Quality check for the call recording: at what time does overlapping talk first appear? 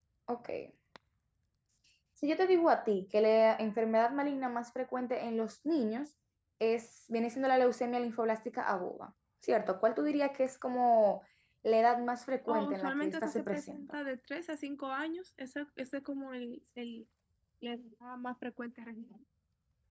12.5 s

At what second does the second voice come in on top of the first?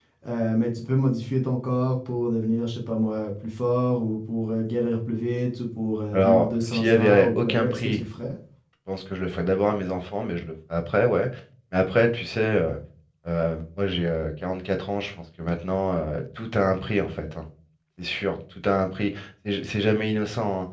6.1 s

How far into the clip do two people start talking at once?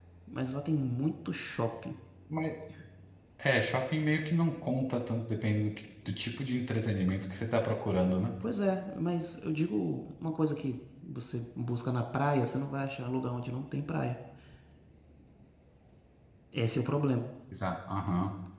none

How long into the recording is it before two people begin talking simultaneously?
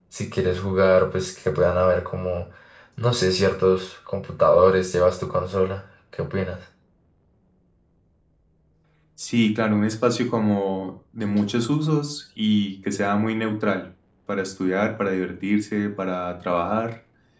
none

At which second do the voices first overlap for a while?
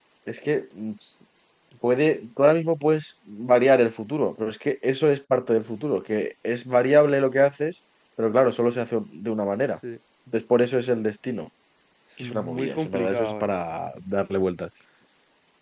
12.2 s

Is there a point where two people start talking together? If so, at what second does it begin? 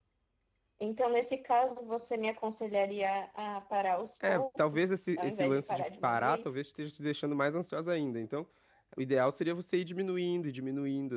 4.2 s

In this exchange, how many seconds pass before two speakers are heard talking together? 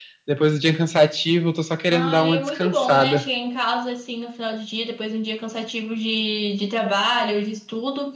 1.9 s

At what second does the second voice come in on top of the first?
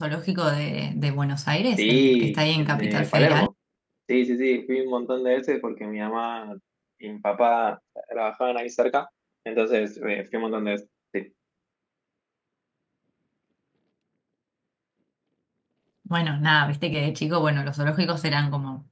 1.8 s

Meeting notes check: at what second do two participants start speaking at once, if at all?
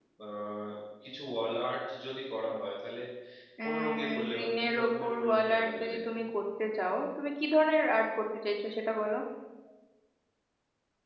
3.6 s

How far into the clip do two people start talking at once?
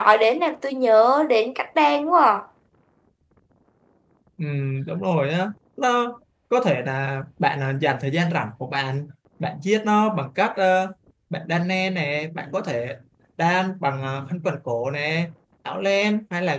none

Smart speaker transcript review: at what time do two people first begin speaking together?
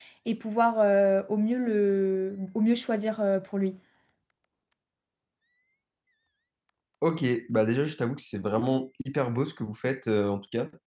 none

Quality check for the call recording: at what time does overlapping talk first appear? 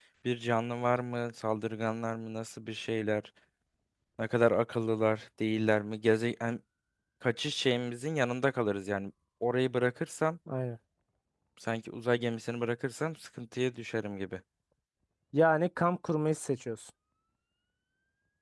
none

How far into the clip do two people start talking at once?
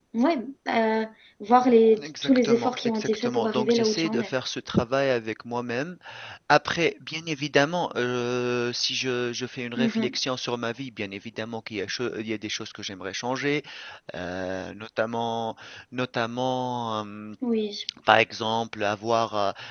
2.0 s

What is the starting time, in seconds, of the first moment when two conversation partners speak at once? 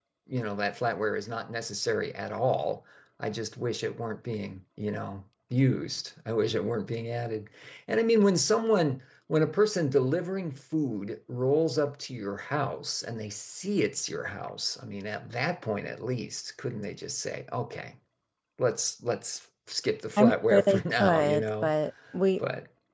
20.2 s

